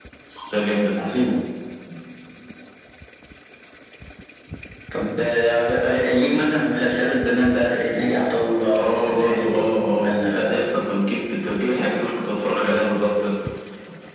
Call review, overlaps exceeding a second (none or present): present